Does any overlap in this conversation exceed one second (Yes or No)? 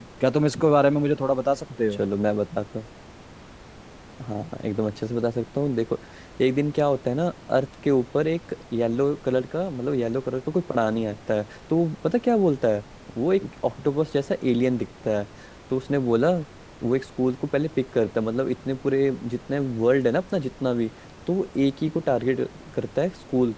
No